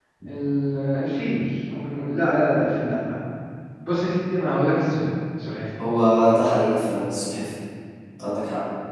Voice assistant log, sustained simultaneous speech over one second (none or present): none